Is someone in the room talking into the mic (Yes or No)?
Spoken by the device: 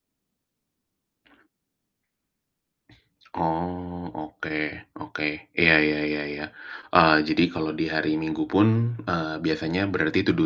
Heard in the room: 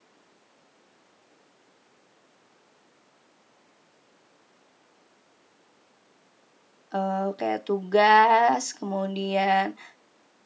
Yes